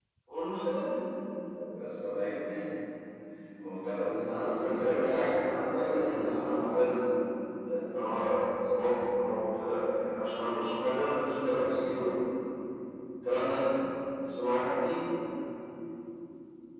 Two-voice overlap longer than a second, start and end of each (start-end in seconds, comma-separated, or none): 4.2-6.6